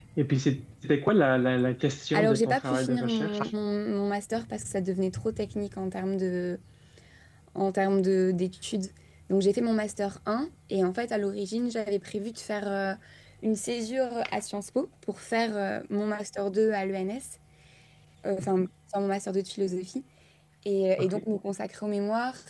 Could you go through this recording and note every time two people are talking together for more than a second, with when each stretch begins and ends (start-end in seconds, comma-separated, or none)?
2.1-3.4